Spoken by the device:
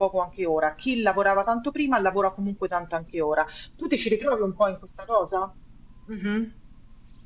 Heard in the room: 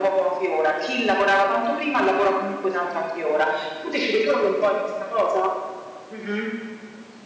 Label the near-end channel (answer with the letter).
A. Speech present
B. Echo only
B